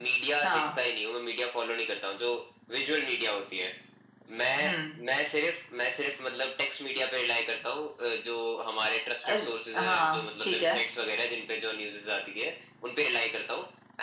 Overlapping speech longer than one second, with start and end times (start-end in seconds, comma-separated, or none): 9.2-10.8